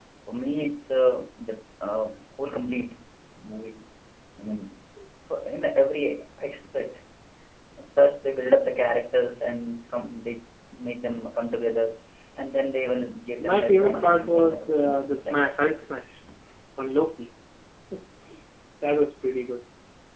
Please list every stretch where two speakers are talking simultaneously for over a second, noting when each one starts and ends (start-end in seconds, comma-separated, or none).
13.4-15.6